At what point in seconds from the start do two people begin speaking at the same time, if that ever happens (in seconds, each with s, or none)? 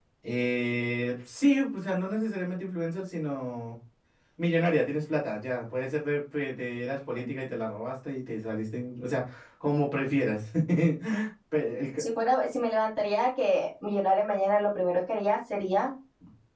none